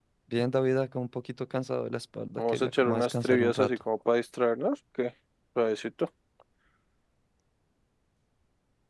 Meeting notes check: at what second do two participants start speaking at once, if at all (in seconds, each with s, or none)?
2.4 s